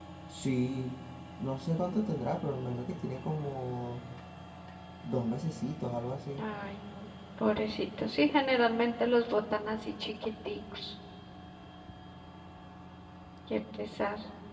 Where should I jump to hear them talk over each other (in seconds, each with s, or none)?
none